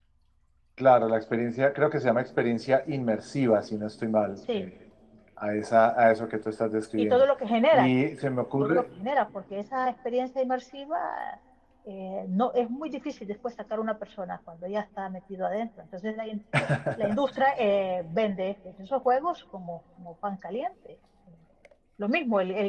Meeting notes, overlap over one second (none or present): none